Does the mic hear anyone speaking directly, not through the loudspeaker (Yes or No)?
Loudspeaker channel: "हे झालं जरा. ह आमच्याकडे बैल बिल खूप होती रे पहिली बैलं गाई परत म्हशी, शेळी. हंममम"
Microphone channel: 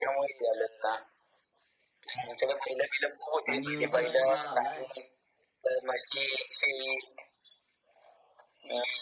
Yes